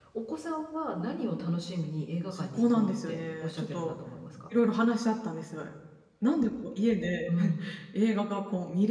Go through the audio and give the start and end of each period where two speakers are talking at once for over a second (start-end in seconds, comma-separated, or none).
2.3-4.0